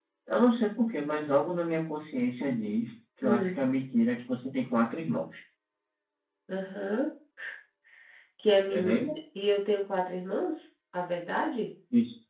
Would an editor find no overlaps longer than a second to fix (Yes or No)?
Yes